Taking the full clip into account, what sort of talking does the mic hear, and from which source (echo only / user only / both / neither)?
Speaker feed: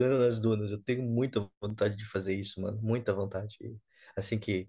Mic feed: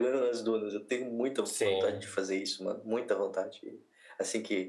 both